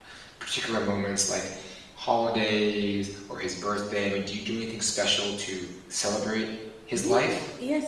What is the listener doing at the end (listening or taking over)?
taking over